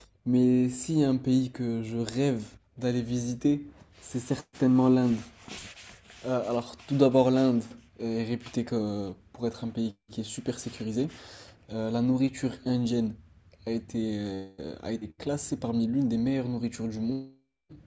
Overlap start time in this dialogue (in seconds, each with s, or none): none